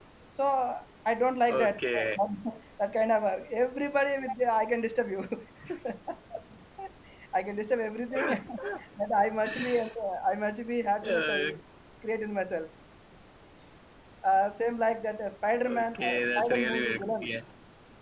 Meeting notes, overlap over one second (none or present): present